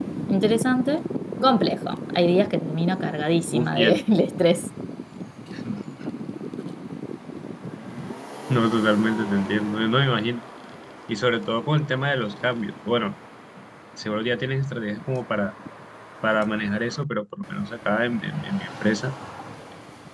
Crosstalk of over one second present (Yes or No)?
No